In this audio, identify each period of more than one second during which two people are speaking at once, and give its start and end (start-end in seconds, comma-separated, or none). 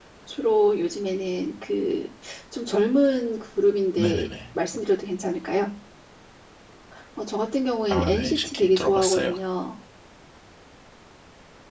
7.9-9.3